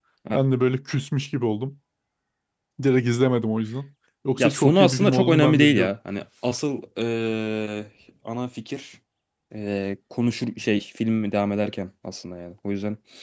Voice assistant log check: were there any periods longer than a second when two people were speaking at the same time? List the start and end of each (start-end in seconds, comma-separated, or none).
4.4-5.9